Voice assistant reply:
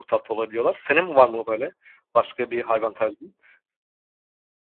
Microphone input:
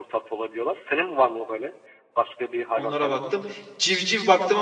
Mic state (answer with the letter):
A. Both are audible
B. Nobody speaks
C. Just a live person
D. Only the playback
A